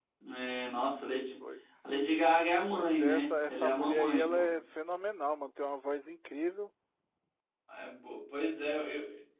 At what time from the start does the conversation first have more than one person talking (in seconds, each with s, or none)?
2.7 s